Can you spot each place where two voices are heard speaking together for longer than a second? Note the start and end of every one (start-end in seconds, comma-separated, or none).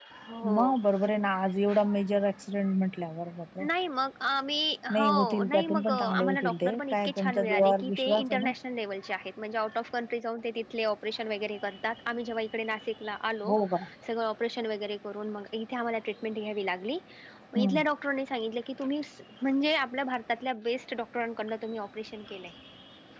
4.9-8.5